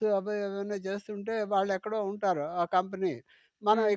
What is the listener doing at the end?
listening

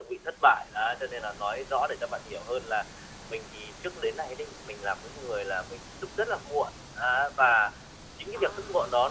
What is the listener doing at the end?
listening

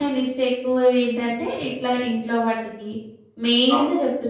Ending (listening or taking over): listening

